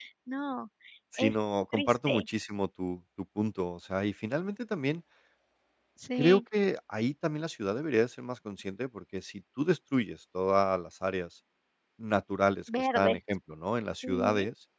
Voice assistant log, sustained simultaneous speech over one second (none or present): none